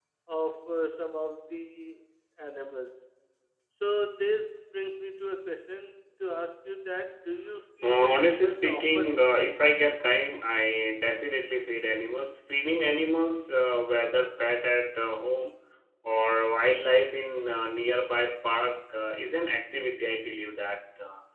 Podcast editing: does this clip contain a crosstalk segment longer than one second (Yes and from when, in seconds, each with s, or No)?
Yes, from 7.8 s